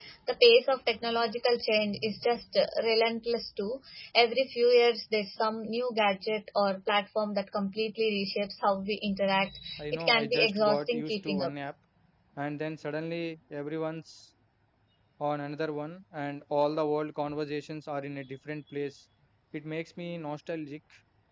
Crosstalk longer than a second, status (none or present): present